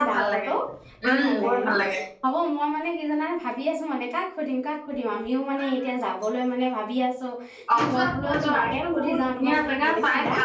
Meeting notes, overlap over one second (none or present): present